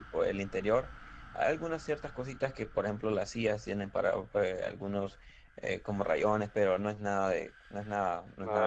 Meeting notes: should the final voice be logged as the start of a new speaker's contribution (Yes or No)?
Yes